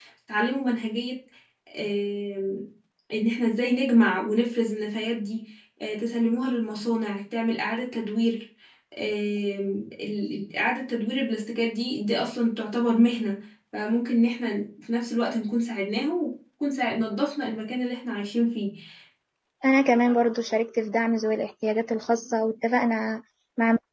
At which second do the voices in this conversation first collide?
none

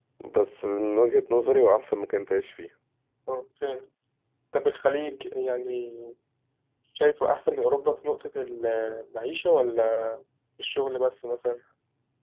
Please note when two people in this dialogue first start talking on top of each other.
none

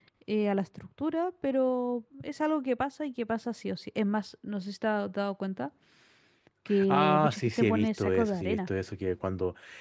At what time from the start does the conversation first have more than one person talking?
6.9 s

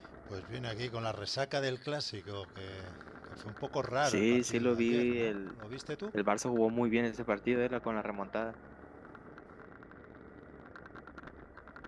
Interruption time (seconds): 4.0 s

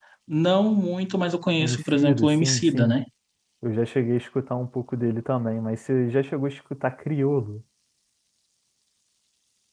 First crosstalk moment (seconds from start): 1.6 s

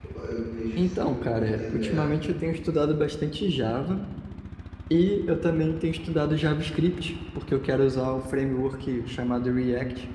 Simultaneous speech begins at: 0.8 s

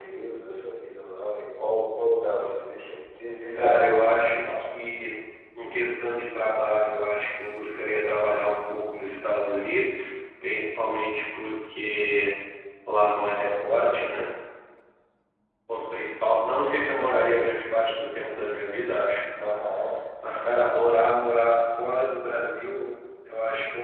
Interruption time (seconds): 3.5 s

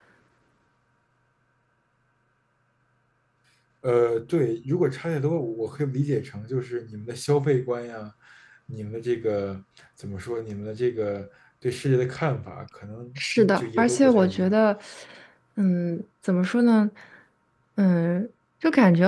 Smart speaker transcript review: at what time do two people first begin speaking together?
13.2 s

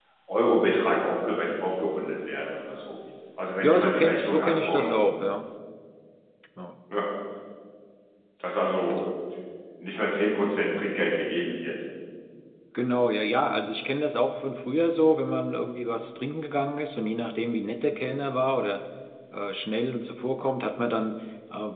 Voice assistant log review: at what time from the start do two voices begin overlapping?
3.6 s

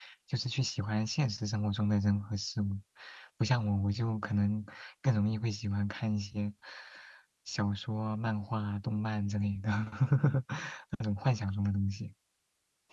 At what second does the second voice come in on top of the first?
none

